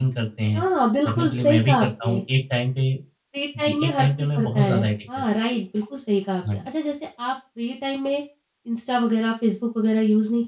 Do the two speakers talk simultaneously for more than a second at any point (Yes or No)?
Yes